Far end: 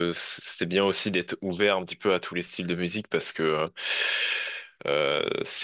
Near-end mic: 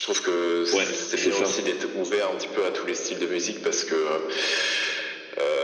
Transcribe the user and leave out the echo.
Ouais, c'est ça.

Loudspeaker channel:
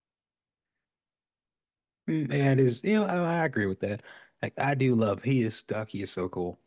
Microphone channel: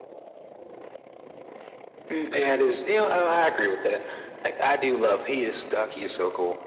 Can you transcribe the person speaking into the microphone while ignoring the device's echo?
none

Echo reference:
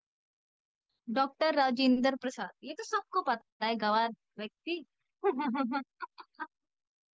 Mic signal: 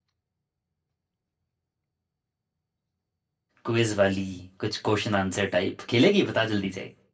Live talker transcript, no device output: क्विज वाली कुछ क्वेश्चन आंसर टाइप खेलेगी बता जल्दी से

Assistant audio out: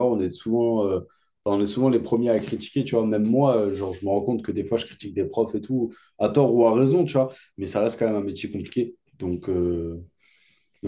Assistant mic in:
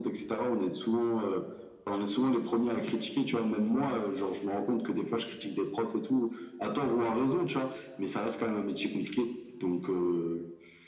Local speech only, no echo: none

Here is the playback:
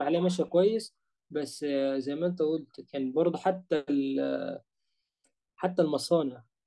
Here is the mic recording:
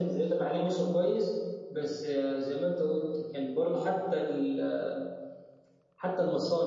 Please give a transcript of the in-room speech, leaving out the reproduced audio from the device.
none

